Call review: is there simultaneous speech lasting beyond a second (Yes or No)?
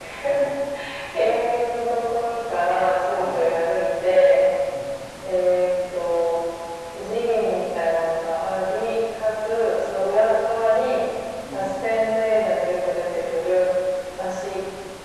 No